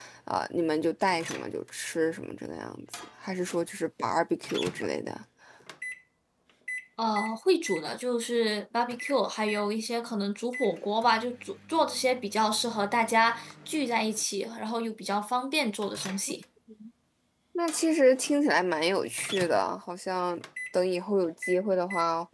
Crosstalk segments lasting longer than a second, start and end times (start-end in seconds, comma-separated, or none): none